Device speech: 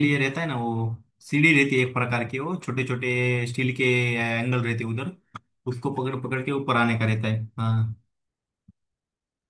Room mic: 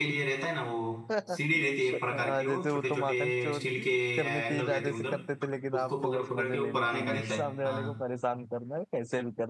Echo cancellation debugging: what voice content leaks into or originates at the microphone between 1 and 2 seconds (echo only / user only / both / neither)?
both